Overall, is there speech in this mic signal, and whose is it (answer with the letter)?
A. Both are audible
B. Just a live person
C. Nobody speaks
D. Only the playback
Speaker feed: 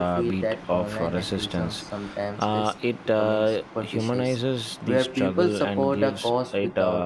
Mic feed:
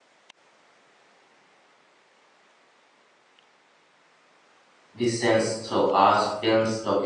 B